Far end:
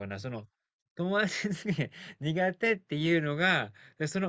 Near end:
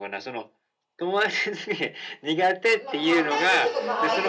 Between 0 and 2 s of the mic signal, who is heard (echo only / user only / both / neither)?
echo only